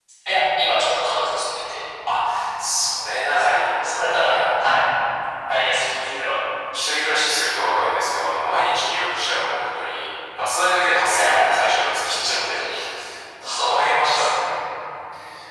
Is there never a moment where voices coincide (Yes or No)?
No